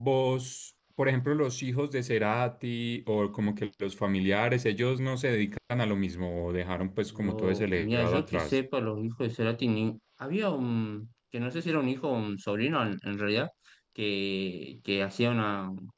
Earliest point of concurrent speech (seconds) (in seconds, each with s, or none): 7.1 s